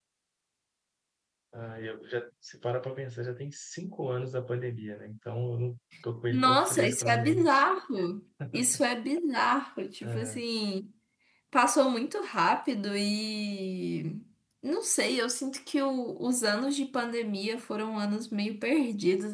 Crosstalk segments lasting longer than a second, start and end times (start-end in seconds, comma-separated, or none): 6.3-7.7